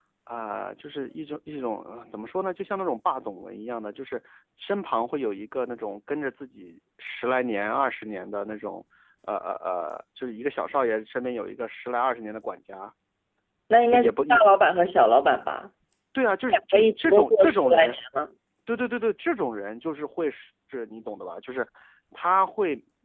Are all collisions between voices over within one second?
No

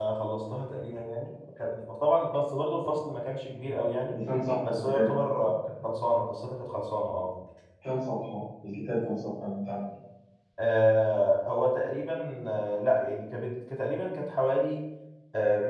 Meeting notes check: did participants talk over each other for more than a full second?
No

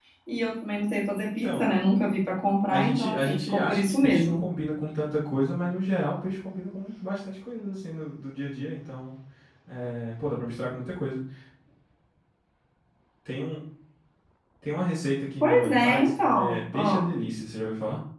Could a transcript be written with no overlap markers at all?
No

